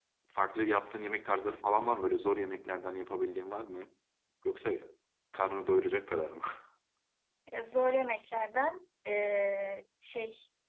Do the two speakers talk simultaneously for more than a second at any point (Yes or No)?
No